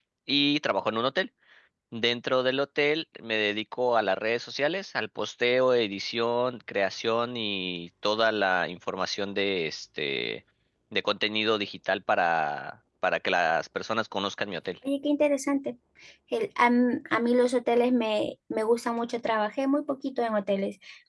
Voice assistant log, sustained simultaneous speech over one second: none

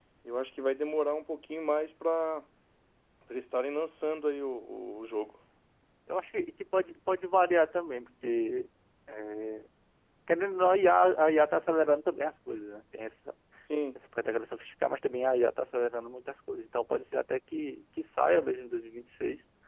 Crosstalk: none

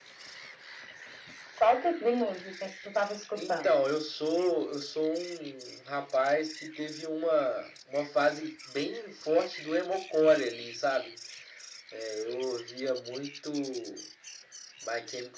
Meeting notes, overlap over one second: none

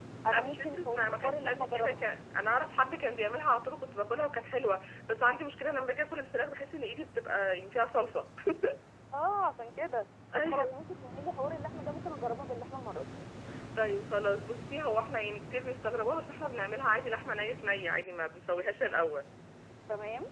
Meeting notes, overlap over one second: present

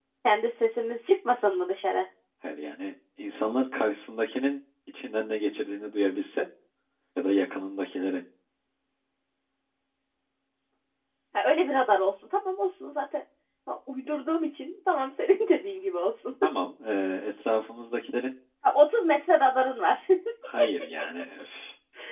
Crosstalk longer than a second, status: none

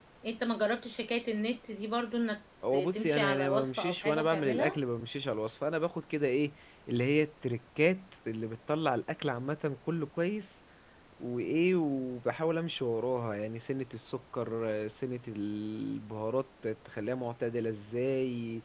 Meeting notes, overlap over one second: present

